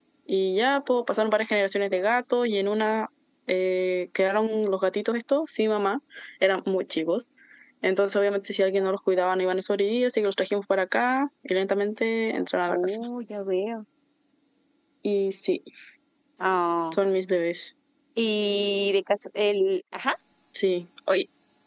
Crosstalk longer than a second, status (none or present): none